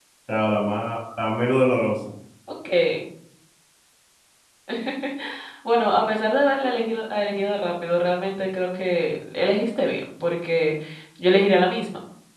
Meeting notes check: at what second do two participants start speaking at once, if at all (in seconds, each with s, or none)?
none